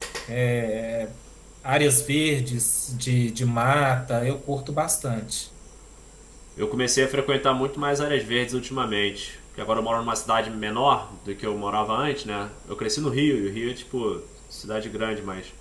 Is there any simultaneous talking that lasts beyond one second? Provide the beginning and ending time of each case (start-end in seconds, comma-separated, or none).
none